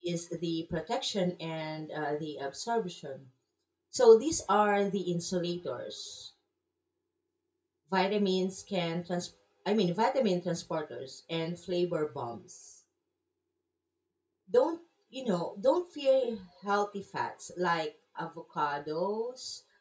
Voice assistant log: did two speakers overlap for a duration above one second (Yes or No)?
No